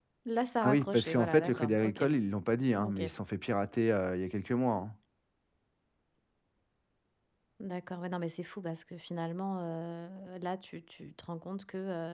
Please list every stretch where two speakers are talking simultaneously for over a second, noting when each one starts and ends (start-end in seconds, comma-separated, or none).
0.6-2.0